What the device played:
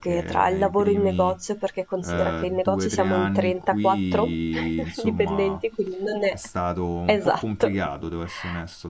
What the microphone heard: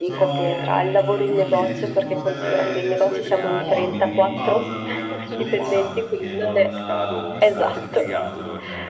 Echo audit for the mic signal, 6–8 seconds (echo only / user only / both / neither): both